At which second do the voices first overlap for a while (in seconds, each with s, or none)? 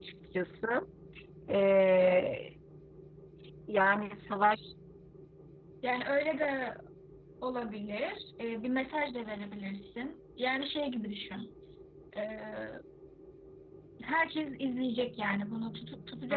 none